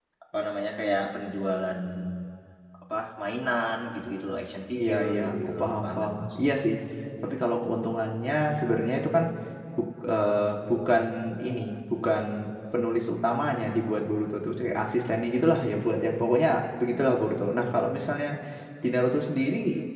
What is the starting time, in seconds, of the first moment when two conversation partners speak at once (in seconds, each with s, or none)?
4.8 s